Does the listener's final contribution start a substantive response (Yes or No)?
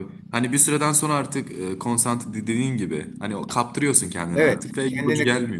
Yes